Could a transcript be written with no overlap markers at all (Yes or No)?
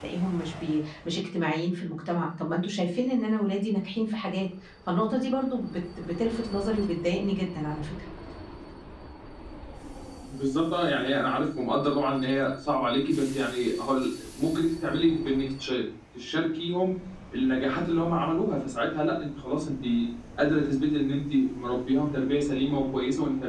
Yes